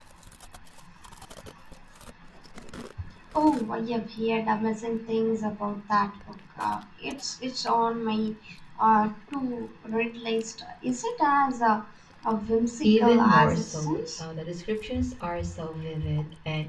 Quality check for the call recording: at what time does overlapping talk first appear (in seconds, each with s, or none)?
12.8 s